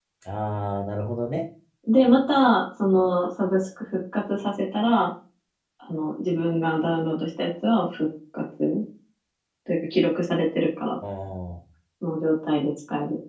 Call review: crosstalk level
none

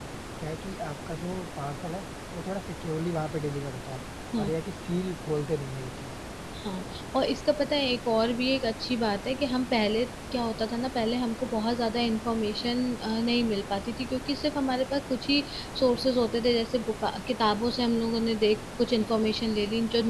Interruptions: none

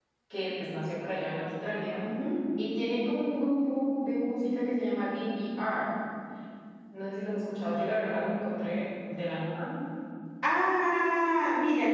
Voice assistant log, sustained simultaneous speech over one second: none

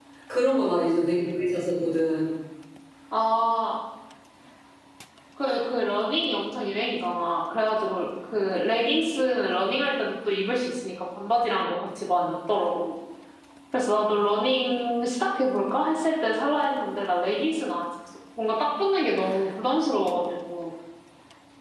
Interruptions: none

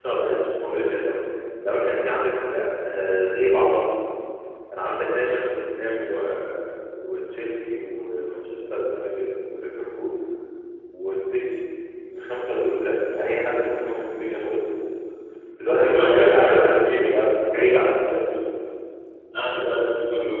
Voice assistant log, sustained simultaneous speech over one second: present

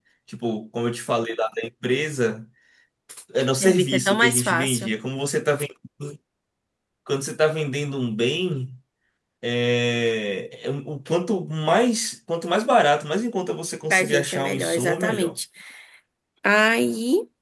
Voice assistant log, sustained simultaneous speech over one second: present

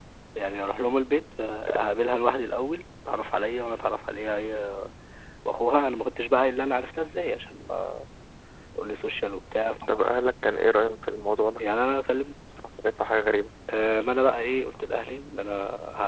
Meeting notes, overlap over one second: none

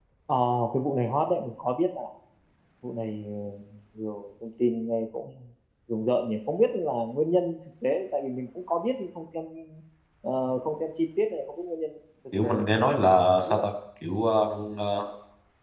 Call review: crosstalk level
present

